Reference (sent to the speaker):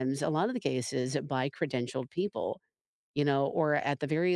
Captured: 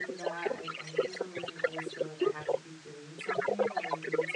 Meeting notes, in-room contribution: present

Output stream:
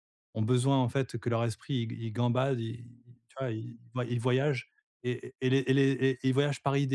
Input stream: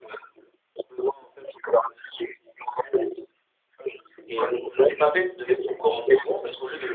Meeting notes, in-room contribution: present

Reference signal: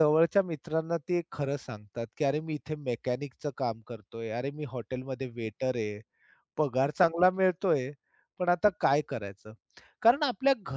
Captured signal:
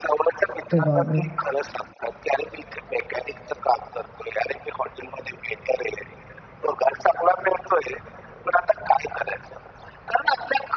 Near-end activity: present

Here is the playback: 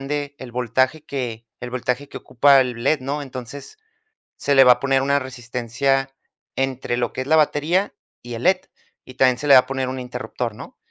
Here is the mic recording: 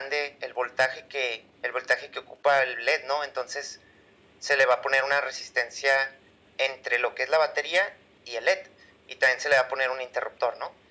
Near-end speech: none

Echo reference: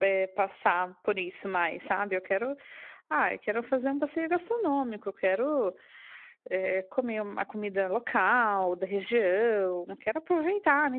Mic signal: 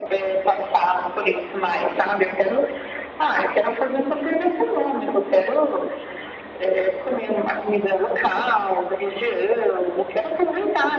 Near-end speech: none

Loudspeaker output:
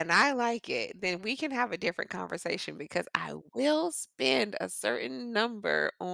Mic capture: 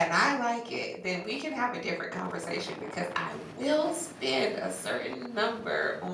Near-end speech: none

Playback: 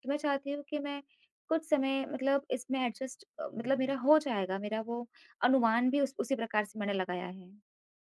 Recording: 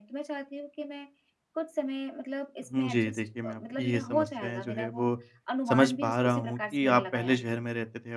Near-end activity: present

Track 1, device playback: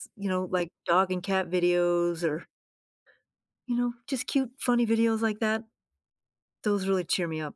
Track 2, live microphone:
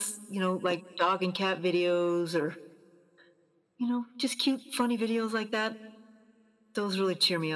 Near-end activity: none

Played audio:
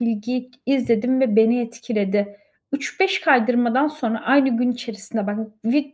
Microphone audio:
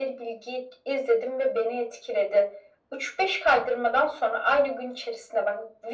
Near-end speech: none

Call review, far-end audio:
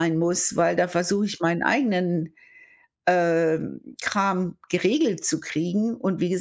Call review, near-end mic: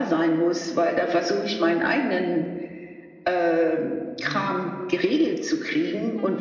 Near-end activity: present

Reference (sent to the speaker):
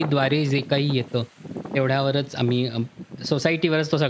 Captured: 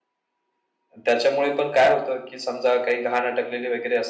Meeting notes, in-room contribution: present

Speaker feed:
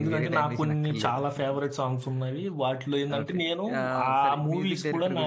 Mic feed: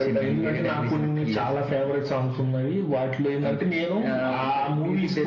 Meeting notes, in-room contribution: none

